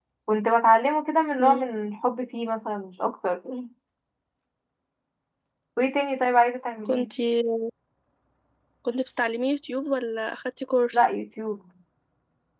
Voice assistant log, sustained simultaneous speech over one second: none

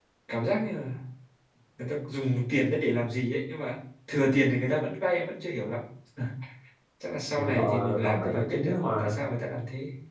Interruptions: present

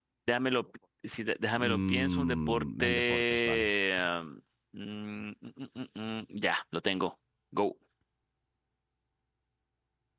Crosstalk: present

